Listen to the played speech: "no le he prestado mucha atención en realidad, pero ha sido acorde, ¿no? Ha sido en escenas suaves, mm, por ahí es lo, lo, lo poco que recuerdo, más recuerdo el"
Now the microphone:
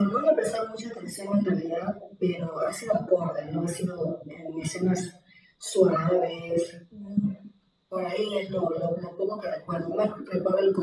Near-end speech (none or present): none